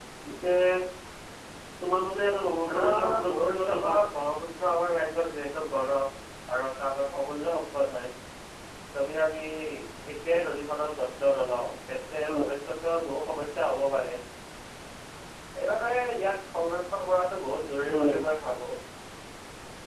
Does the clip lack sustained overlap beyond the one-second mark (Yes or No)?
No